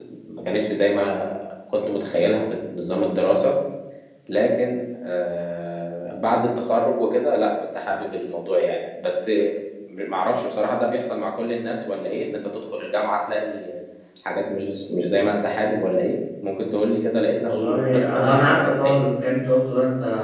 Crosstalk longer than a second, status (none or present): present